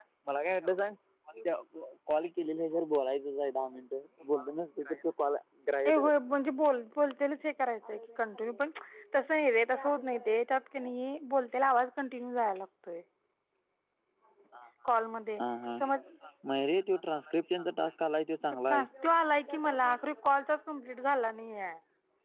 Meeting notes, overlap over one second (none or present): none